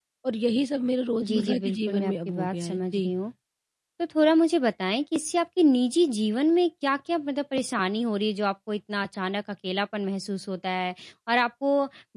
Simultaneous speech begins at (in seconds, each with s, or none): 1.2 s